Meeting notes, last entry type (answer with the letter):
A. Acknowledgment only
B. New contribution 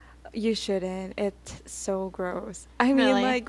A